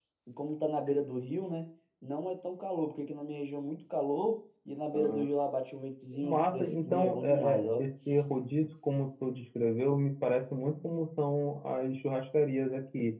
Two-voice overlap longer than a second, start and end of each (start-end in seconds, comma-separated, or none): 6.2-7.8